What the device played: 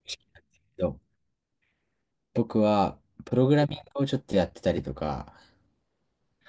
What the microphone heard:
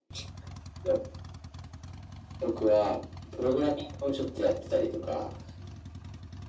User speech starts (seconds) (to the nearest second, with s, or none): none